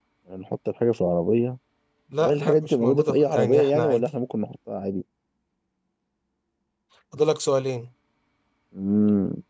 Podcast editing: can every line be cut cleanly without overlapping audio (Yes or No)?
No